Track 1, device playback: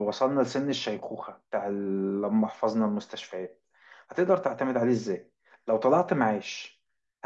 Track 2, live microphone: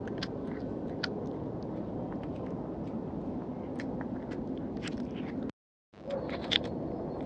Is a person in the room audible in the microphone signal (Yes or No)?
No